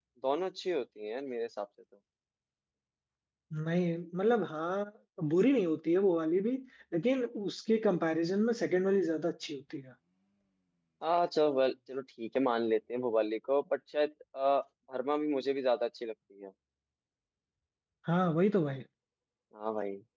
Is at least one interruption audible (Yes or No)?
No